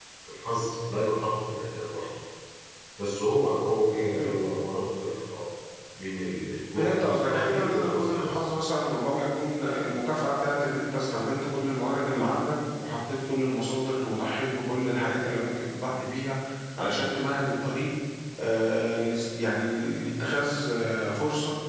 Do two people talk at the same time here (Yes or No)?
Yes